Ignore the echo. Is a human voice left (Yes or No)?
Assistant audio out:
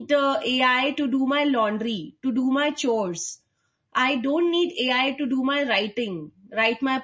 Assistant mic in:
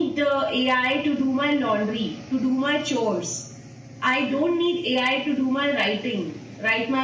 No